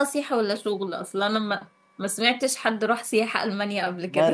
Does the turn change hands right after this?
Yes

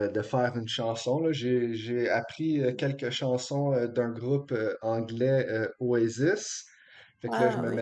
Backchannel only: Yes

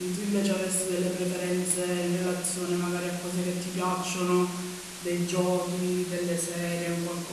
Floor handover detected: Yes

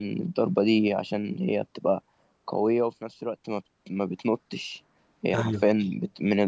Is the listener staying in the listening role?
Yes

